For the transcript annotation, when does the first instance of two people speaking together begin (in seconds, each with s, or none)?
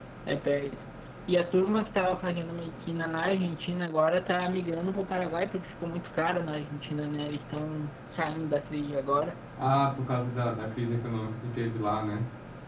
none